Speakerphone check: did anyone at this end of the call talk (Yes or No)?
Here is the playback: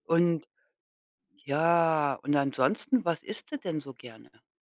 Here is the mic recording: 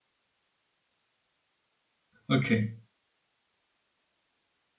Yes